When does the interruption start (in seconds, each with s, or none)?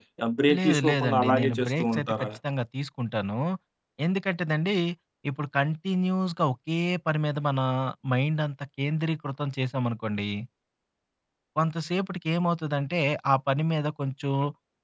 0.6 s